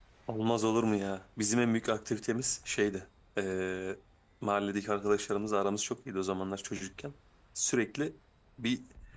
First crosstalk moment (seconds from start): none

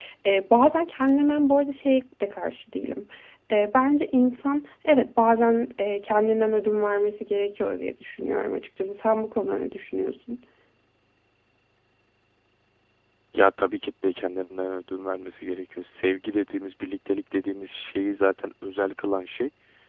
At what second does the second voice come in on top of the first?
none

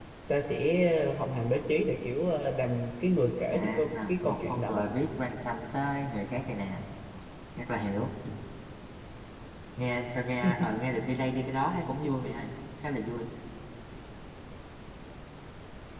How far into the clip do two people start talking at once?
3.5 s

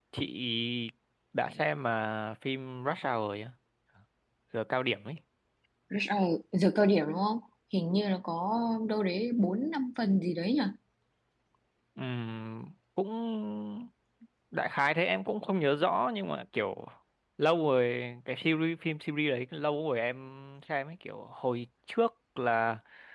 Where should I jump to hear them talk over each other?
none

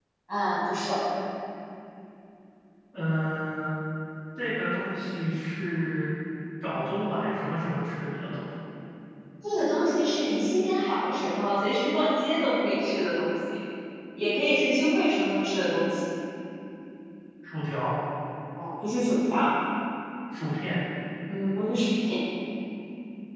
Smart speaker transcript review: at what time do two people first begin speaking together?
none

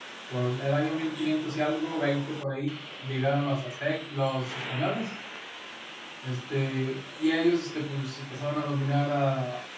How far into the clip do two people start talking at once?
none

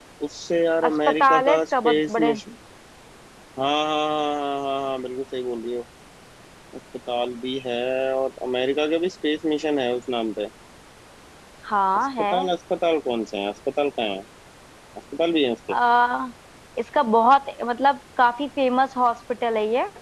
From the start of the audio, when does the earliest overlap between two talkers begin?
0.9 s

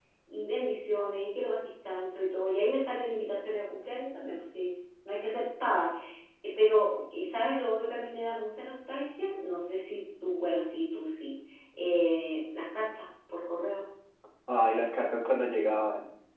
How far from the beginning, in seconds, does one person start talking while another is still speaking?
none

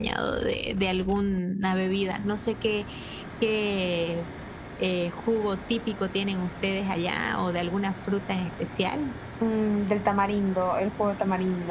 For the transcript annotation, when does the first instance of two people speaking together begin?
none

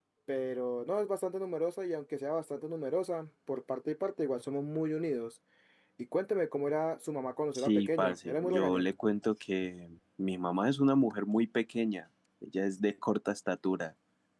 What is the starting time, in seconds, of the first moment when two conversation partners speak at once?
7.5 s

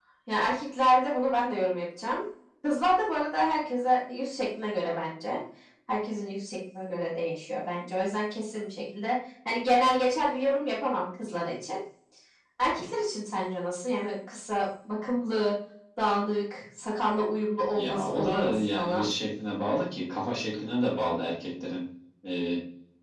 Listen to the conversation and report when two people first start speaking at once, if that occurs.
17.7 s

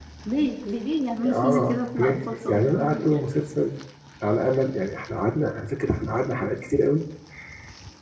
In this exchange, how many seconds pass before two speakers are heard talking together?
1.2 s

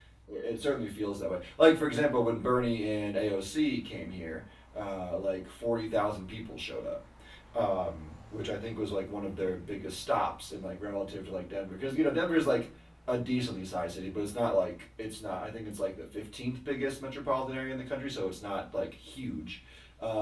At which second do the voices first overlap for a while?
none

